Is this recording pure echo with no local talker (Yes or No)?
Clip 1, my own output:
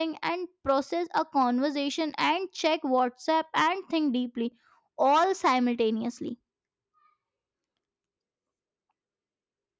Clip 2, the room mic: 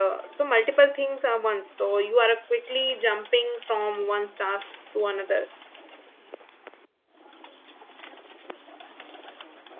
No